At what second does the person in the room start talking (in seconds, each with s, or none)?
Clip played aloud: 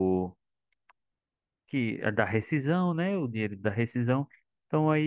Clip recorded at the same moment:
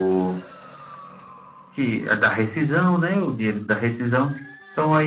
none